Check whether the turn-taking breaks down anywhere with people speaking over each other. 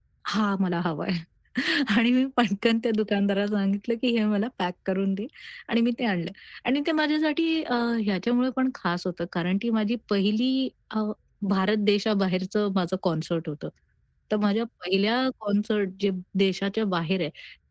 No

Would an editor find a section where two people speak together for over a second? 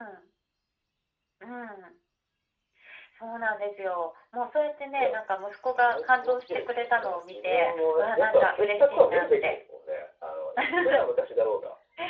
Yes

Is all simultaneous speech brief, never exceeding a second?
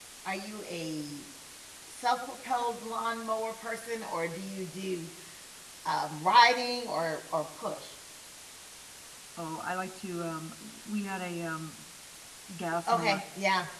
Yes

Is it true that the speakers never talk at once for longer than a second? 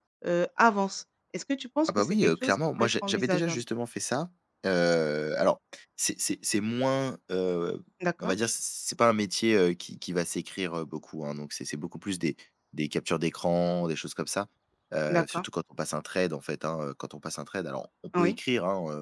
No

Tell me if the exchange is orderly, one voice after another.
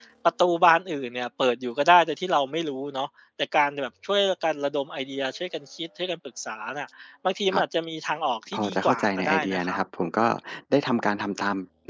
No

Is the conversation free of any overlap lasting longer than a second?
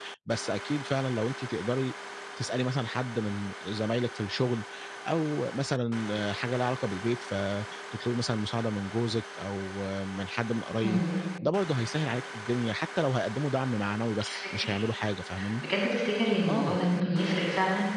Yes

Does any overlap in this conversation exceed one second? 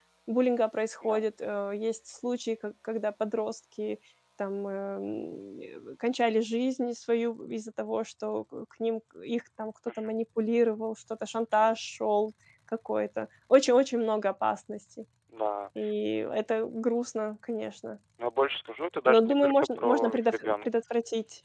Yes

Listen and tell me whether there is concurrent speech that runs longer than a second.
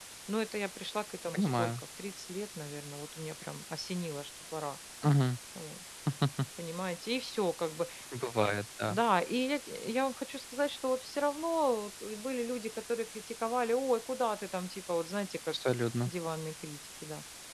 No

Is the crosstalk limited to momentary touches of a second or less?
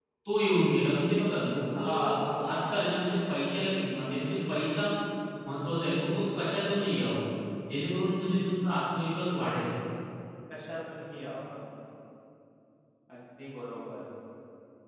Yes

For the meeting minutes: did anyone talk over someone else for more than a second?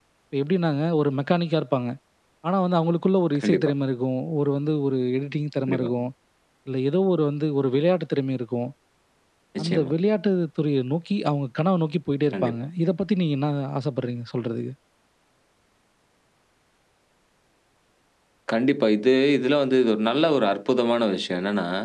No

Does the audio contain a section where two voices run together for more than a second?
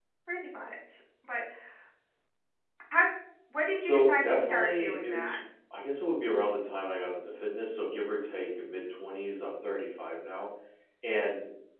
Yes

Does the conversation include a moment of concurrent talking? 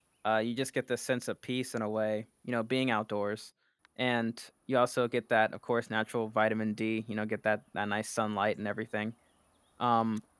No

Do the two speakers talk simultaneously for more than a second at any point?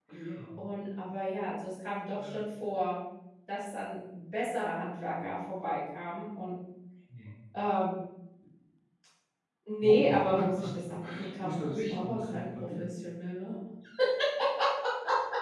Yes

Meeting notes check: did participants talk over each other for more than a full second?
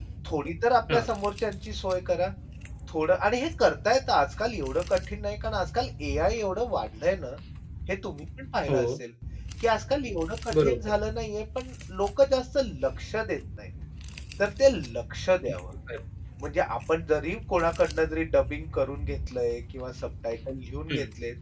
No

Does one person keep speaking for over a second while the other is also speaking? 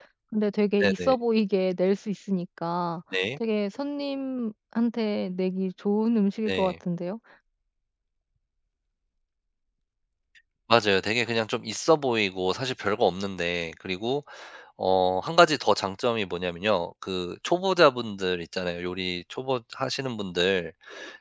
No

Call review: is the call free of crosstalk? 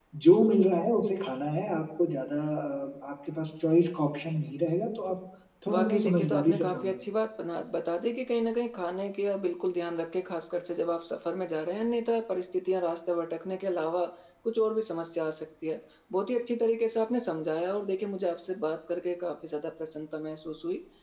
No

